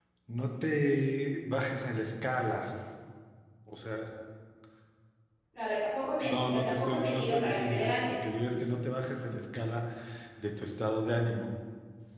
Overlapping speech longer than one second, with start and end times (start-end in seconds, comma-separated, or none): 6.2-8.2